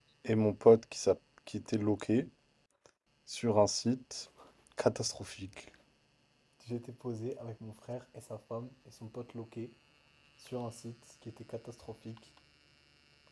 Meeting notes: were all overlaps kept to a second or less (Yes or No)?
Yes